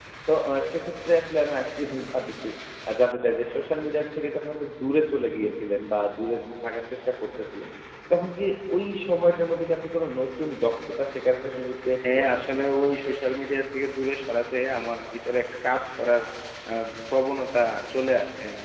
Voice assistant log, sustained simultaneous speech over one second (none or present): none